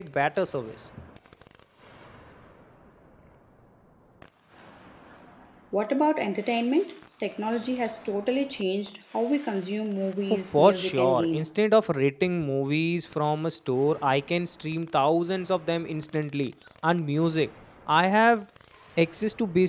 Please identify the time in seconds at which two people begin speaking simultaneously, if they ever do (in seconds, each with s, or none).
10.3 s